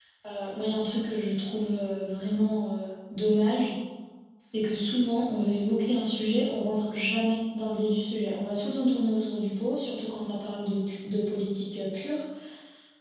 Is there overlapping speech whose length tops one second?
No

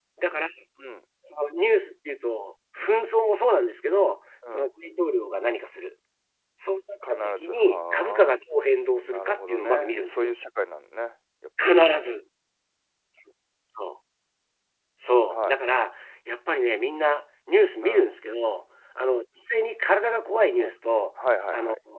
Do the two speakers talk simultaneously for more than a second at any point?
Yes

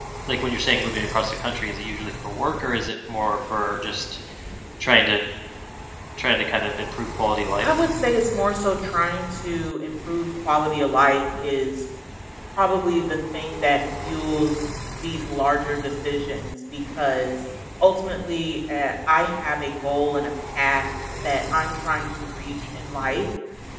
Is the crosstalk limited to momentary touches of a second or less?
Yes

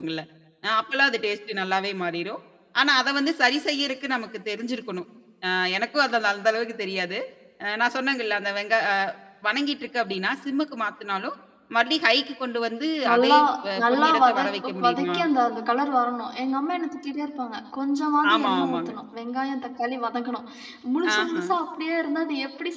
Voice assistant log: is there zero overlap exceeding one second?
No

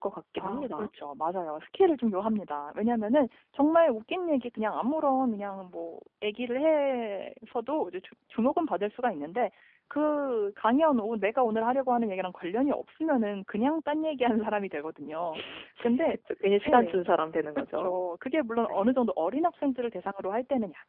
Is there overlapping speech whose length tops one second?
No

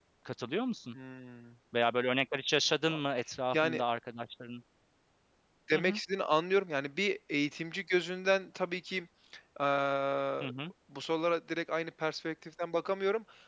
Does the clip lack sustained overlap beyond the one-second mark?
Yes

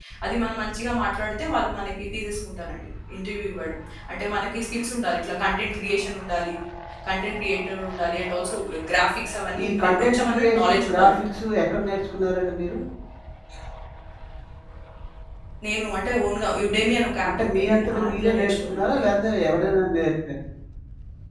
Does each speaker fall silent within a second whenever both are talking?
No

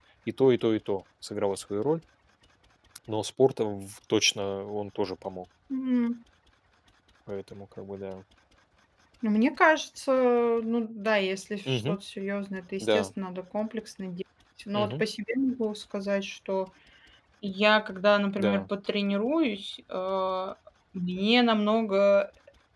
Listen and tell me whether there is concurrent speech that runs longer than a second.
No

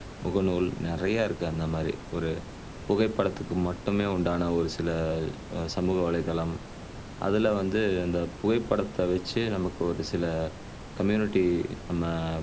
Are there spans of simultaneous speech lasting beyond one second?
No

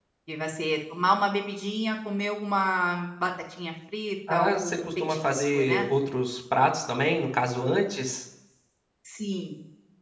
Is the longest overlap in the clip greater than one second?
Yes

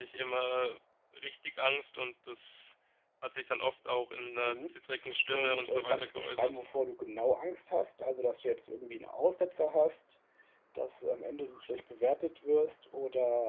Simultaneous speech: Yes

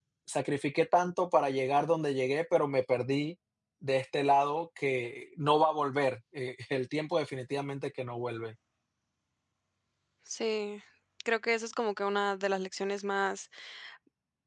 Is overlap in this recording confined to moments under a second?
Yes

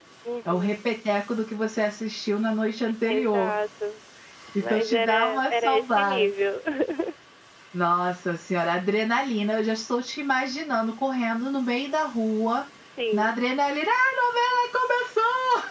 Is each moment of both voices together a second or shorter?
No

